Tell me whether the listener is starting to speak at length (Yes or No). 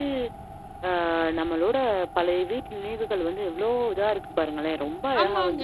Yes